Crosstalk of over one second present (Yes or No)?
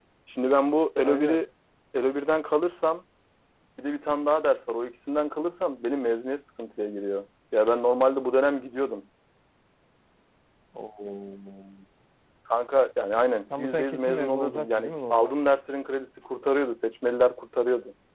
Yes